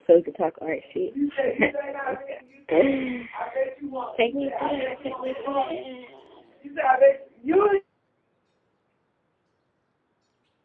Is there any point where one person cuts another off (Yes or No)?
No